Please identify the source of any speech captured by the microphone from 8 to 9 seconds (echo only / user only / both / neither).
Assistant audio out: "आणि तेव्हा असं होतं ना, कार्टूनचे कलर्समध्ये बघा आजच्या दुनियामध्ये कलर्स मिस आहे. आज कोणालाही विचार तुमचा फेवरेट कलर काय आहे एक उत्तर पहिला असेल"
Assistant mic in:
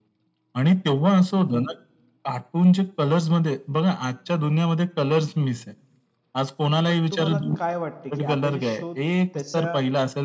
both